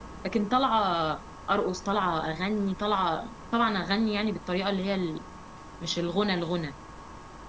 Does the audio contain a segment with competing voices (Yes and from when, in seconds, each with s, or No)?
No